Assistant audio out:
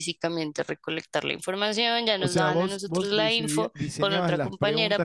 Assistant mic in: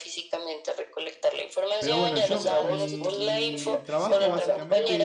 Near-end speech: present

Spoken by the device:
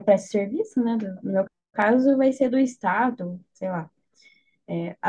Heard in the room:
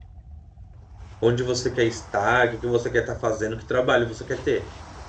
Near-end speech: present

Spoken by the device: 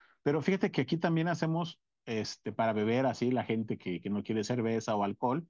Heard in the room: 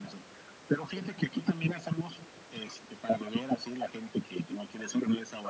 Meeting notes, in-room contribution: none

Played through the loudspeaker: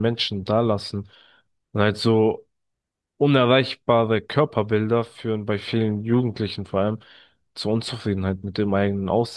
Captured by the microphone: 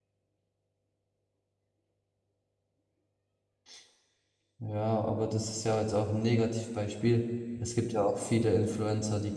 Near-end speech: present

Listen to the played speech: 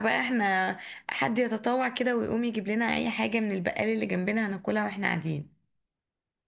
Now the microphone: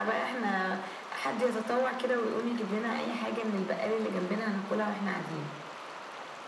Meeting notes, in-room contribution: none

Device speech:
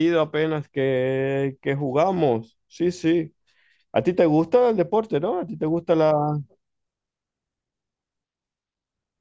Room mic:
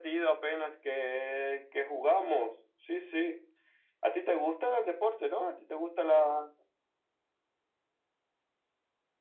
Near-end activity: none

